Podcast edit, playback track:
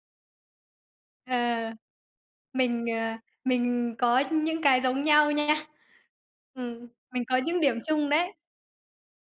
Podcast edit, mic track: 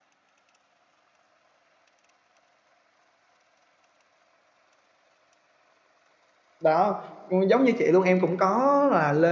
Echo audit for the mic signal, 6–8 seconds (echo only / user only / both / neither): user only